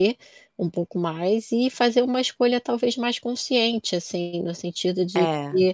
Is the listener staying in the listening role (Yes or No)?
Yes